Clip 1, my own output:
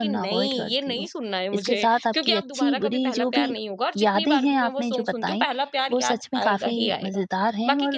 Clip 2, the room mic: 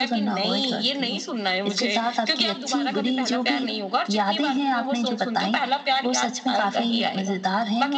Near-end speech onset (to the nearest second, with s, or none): none